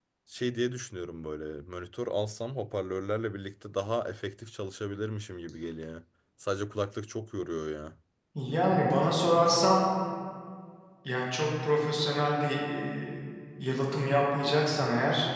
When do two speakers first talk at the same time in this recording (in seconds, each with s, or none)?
none